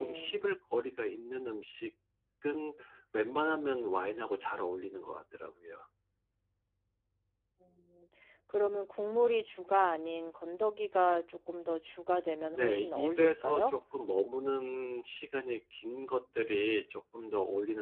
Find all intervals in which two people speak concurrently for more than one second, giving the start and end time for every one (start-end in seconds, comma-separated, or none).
12.5-13.7